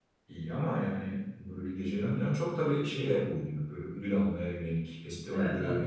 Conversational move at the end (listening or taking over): taking over